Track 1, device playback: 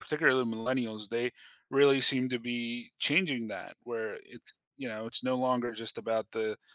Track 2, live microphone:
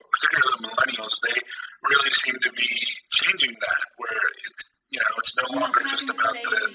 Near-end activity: present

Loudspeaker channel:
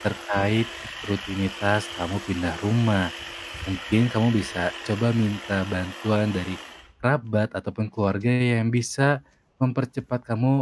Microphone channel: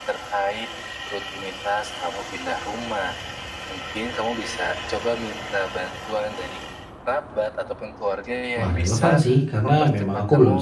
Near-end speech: present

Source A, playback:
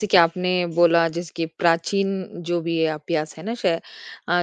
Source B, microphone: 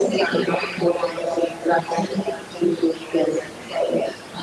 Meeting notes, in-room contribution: none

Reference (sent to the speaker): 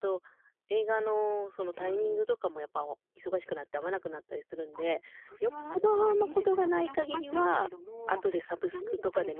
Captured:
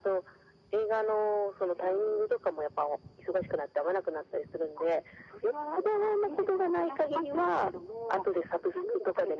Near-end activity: none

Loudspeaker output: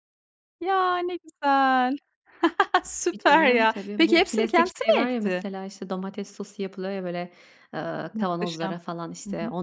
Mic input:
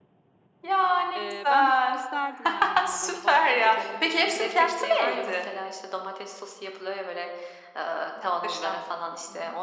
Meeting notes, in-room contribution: present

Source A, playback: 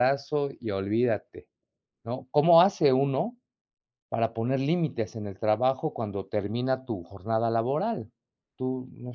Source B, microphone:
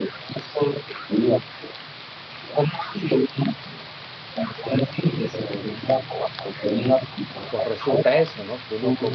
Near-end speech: present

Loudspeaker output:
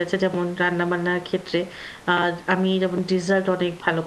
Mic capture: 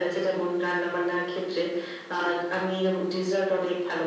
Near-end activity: none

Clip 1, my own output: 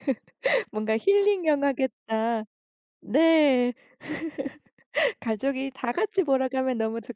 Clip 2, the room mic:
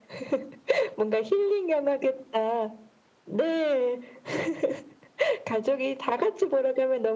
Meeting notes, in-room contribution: none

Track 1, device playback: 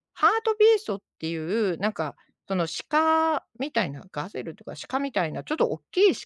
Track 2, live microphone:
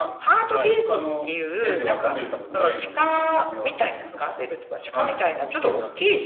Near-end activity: present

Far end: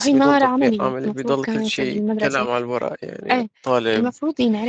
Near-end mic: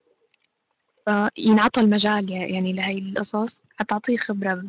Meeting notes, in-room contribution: present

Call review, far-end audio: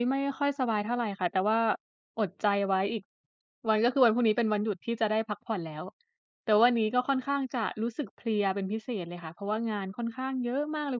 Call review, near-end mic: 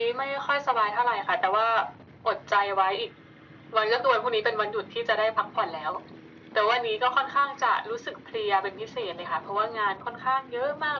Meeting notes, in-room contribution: none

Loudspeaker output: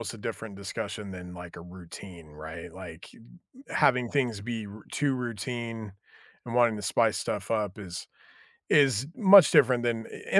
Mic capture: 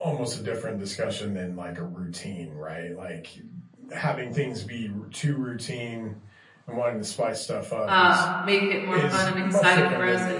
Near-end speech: present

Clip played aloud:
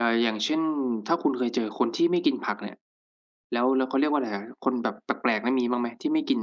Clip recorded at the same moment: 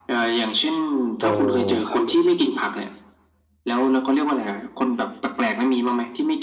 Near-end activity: present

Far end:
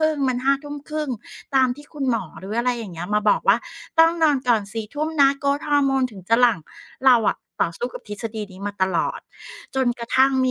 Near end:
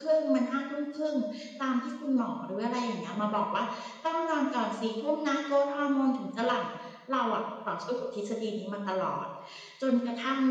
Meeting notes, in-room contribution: none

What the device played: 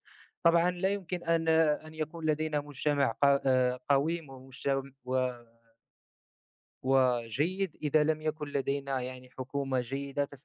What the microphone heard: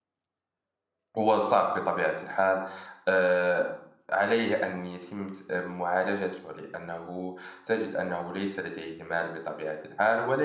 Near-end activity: present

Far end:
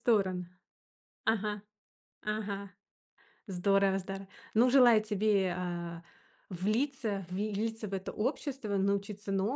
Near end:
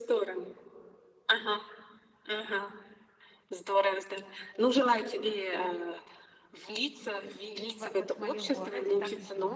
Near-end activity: present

